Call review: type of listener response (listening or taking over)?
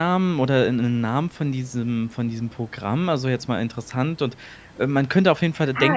taking over